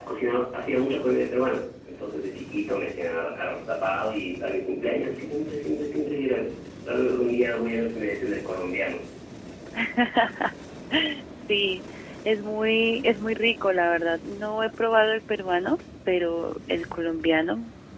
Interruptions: none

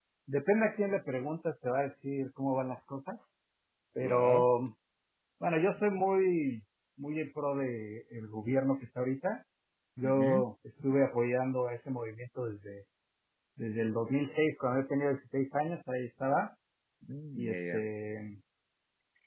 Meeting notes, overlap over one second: none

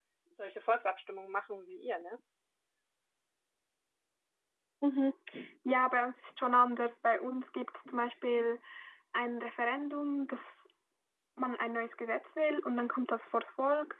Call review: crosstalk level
none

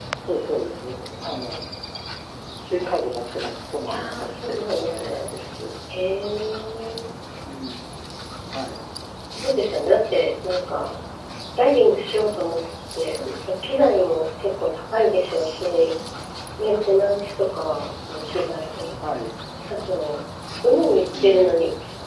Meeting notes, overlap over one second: present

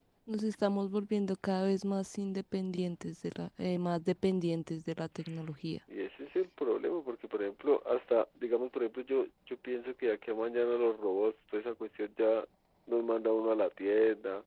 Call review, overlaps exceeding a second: none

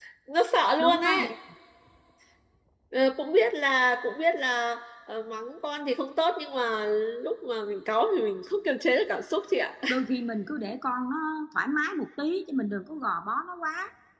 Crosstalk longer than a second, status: none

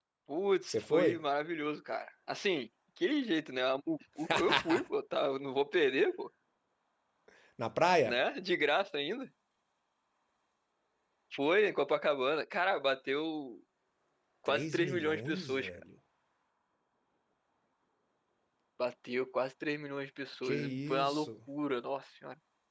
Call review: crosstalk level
present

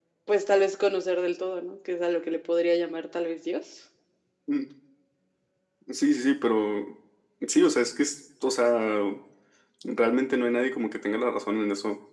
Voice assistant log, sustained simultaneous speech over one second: none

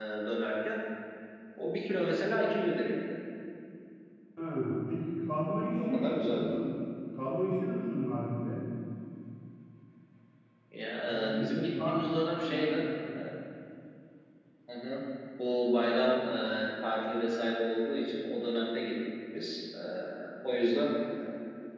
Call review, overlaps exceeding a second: present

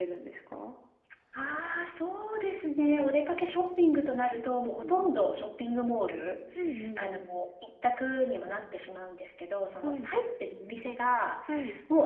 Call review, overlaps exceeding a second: none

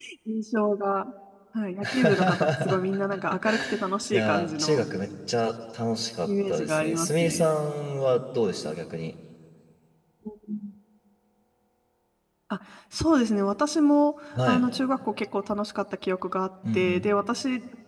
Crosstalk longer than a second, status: present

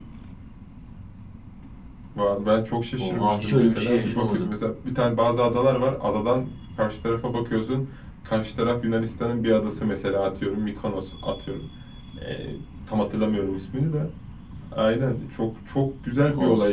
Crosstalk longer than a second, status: present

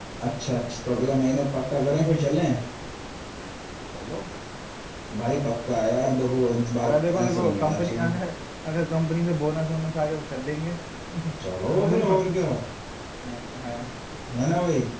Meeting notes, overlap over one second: present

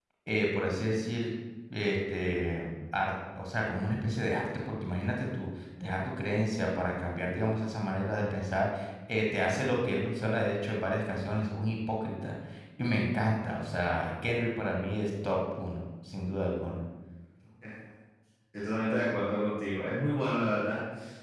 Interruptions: none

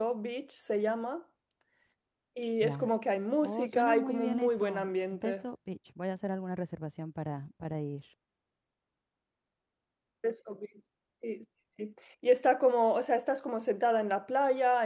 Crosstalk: present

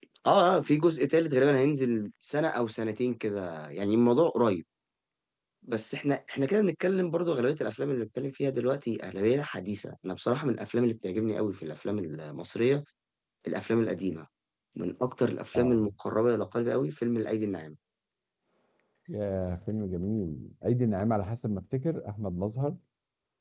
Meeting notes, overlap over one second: none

